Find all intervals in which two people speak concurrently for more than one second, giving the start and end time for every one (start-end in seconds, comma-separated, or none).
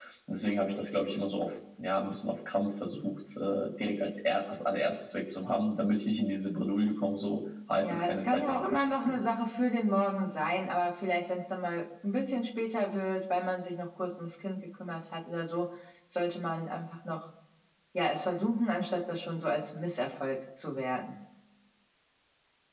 7.8-9.2